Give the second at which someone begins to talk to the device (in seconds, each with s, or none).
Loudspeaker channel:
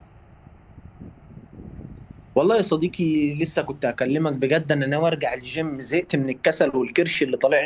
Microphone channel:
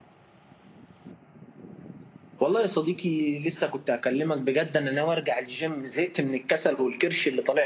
none